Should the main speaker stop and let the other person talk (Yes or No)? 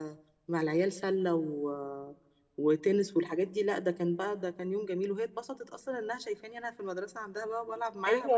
Yes